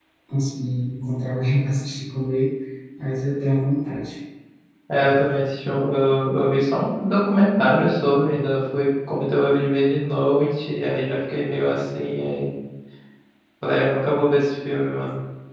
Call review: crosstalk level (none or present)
none